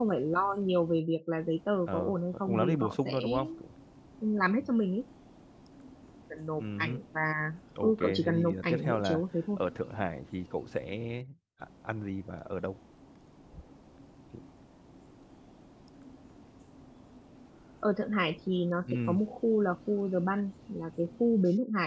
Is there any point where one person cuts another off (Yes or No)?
Yes